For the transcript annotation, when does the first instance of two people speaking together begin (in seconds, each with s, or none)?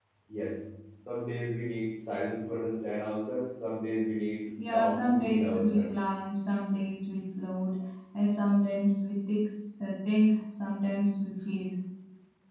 4.6 s